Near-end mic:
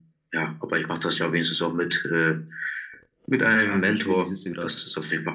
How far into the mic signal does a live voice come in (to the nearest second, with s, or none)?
4 s